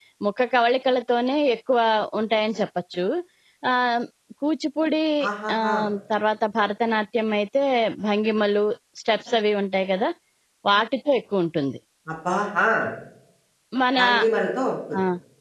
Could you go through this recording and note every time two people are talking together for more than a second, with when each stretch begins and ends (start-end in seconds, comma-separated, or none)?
none